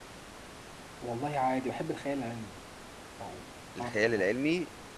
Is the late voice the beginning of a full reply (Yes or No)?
Yes